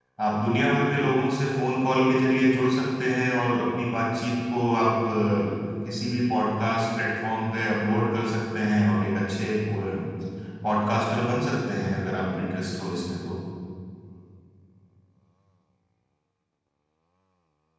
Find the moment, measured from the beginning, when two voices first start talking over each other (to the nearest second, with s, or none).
none